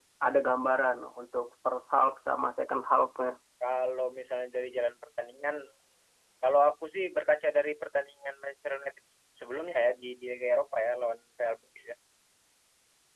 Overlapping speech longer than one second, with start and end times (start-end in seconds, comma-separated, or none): none